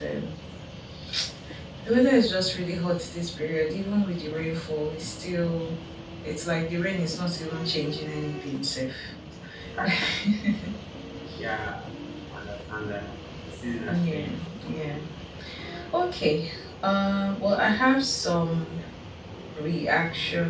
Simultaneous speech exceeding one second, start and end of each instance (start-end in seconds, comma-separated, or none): none